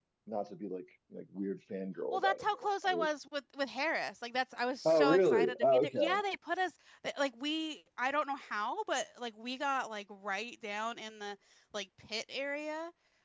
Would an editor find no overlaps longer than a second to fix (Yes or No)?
No